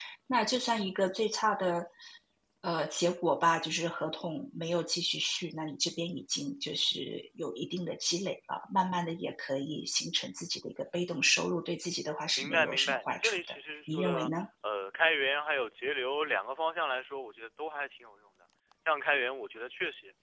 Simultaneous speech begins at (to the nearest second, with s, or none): 12 s